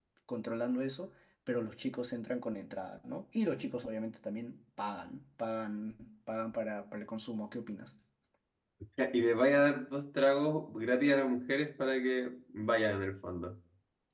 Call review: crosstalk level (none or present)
none